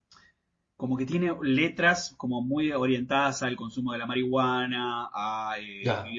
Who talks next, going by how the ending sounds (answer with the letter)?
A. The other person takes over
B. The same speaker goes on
B